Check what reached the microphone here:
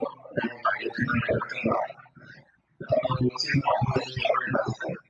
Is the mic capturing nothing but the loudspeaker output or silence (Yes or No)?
Yes